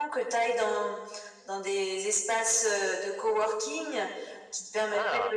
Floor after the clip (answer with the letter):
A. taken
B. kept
B